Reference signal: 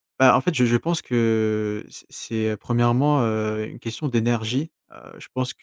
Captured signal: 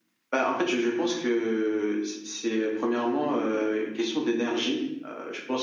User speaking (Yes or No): No